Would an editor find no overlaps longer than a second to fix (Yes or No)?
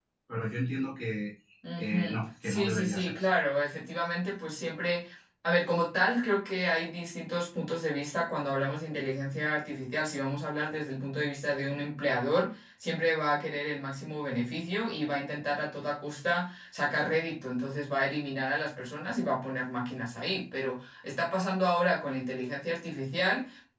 No